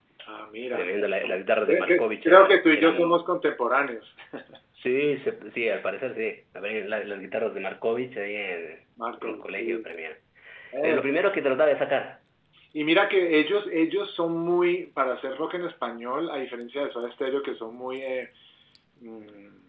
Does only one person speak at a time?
No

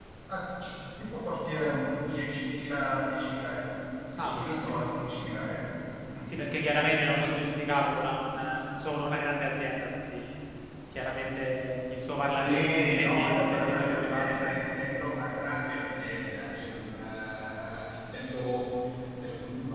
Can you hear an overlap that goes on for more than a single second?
Yes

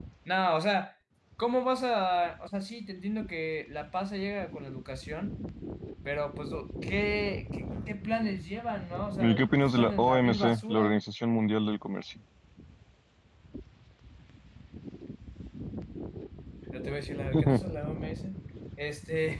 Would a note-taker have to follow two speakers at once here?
Yes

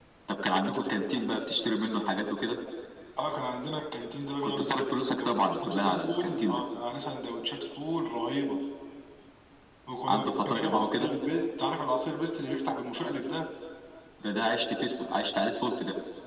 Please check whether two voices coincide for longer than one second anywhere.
Yes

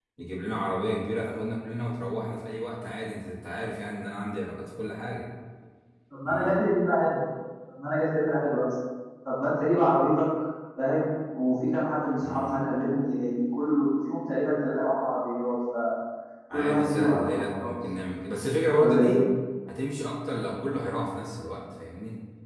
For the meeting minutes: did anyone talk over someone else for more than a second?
Yes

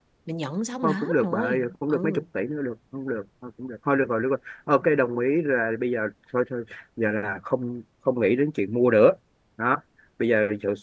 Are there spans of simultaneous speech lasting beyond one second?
Yes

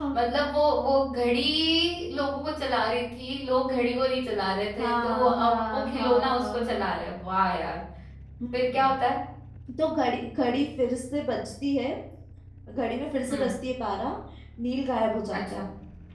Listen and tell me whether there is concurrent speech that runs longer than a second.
Yes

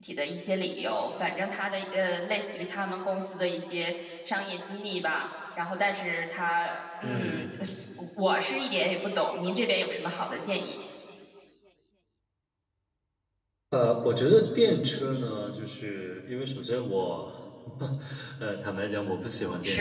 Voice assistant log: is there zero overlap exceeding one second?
Yes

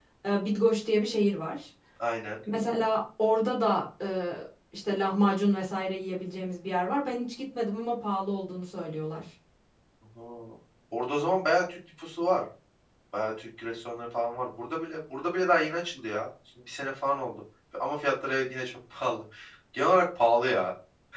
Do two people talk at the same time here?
No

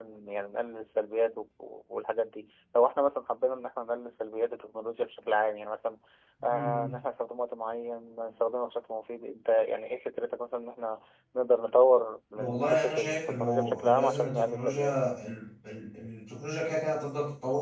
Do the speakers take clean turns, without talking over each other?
No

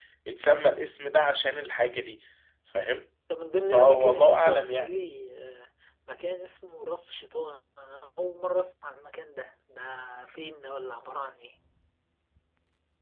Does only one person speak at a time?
No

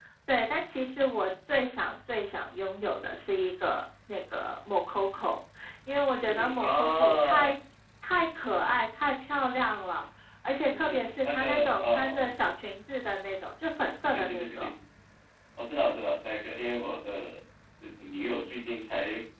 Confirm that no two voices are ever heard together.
No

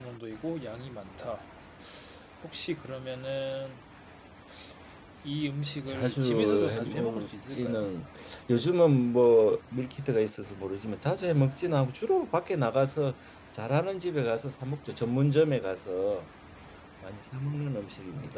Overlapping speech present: Yes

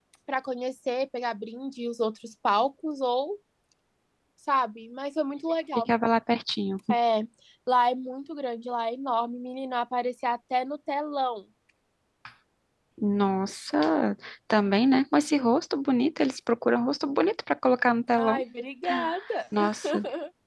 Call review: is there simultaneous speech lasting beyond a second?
No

